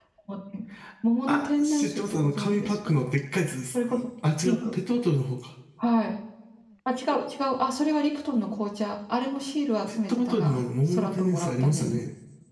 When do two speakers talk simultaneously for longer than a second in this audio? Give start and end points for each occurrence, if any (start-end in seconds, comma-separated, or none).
1.3-2.9, 9.9-12.0